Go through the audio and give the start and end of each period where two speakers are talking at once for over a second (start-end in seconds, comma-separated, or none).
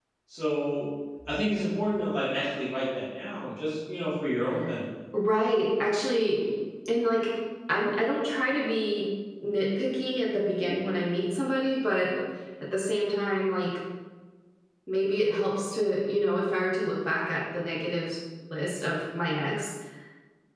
none